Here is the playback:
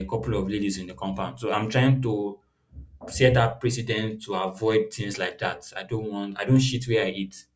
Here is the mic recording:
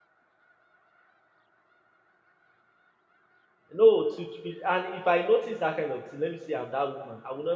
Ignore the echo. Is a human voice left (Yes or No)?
Yes